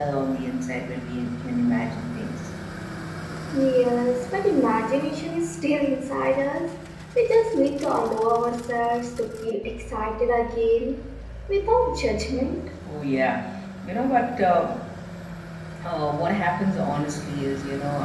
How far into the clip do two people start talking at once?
none

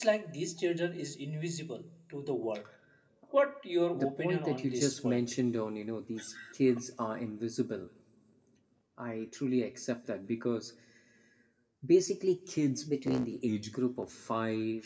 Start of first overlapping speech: 3.9 s

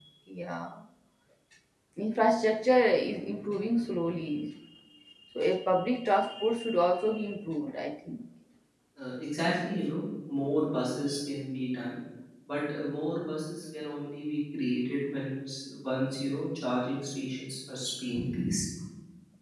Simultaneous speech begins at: none

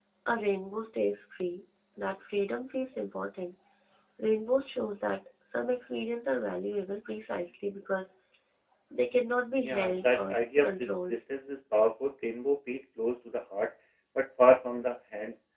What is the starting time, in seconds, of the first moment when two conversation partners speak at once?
9.6 s

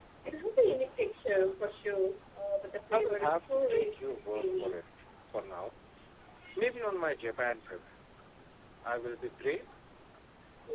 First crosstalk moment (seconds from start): 2.9 s

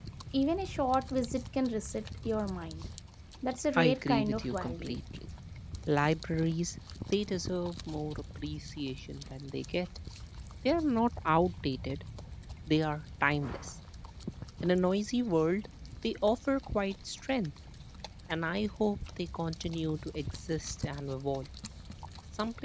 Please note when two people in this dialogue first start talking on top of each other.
3.8 s

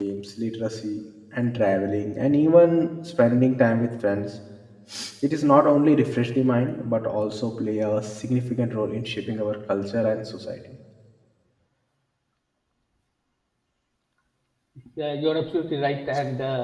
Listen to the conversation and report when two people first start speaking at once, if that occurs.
none

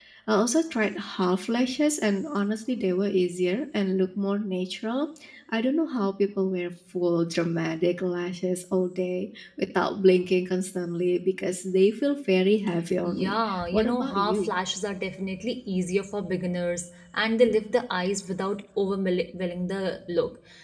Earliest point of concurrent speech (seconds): 13.0 s

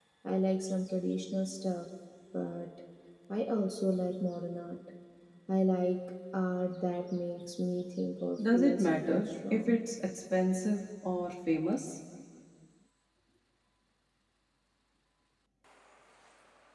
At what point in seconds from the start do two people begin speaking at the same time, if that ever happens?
8.4 s

